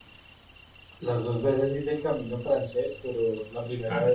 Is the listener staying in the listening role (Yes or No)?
Yes